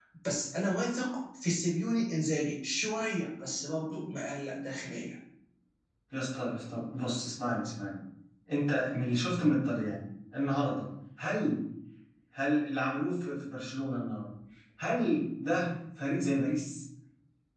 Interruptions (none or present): none